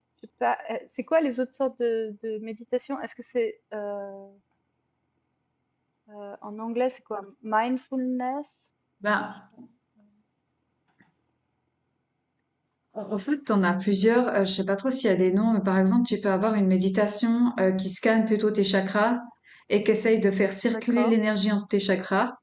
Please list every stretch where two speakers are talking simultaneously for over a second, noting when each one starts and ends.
none

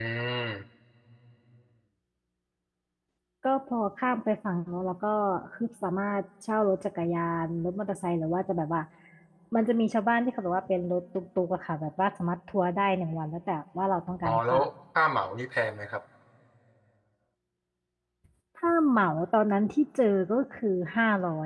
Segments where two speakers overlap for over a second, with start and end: none

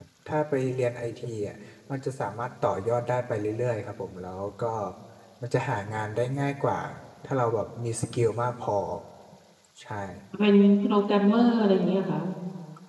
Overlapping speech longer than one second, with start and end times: none

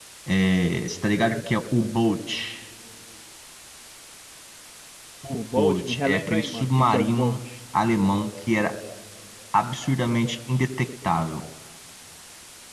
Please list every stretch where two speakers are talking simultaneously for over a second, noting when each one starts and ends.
5.3-7.4

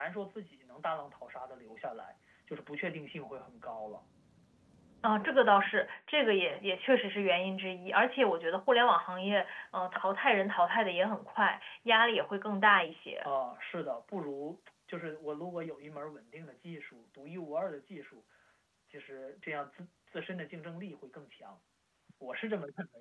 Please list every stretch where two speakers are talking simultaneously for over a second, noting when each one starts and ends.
none

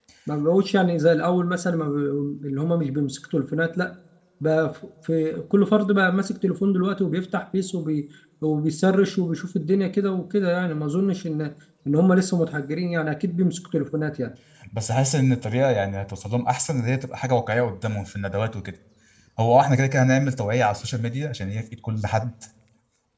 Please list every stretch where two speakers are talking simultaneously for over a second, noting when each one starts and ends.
none

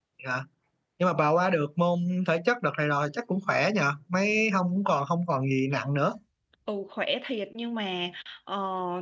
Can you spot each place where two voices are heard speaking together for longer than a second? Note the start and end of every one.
none

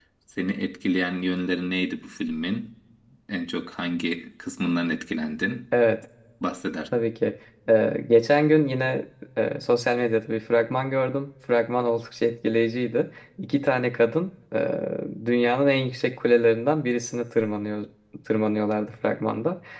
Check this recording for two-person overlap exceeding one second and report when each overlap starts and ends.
none

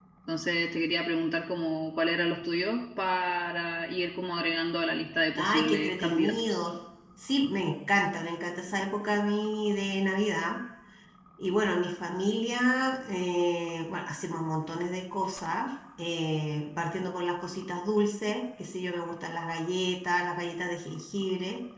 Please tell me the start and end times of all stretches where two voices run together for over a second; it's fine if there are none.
5.4-6.7

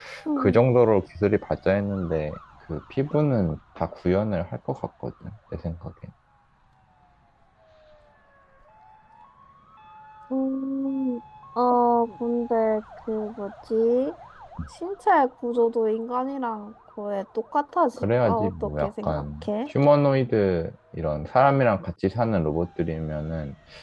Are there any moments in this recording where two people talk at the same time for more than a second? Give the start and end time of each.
18.0-19.5

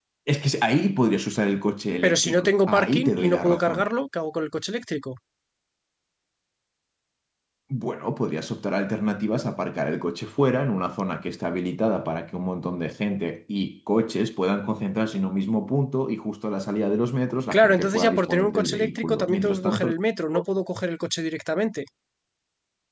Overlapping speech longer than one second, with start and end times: 2.0-3.9, 17.5-19.9

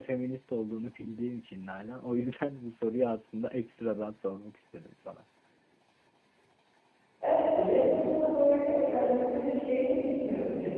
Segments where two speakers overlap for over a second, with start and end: none

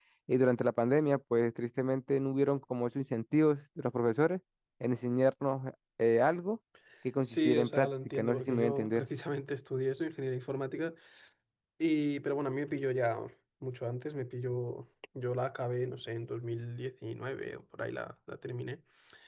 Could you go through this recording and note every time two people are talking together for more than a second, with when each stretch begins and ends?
7.2-9.1

